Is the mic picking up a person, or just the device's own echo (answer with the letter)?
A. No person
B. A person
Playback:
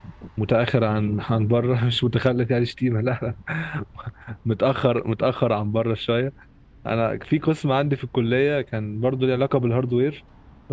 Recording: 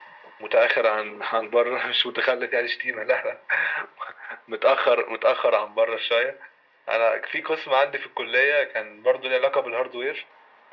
A